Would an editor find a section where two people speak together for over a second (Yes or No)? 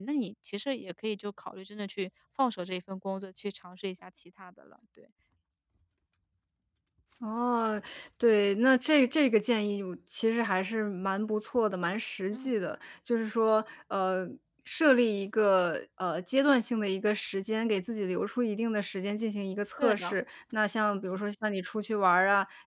No